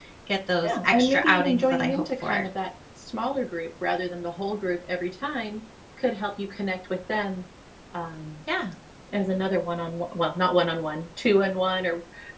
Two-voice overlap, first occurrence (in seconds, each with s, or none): 0.6 s